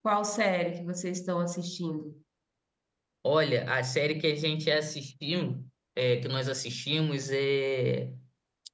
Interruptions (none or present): none